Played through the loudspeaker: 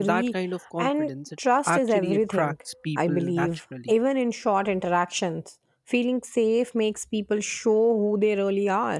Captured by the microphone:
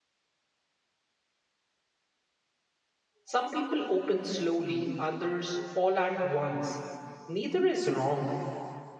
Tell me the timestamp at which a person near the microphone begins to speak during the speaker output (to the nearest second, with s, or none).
3 s